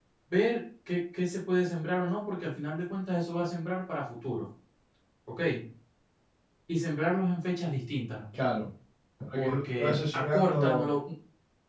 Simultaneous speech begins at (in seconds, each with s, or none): 9.3 s